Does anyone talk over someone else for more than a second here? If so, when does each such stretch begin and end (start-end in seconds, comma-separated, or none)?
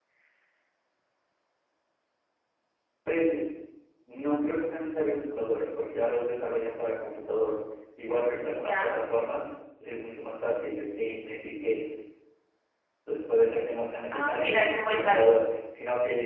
14.1-15.4